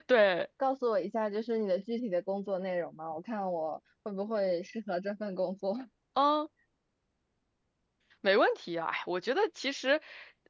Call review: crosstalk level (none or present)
none